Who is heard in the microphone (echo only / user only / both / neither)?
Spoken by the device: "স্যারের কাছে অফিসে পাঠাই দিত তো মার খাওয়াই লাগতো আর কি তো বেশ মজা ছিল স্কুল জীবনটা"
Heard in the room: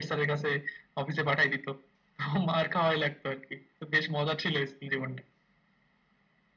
echo only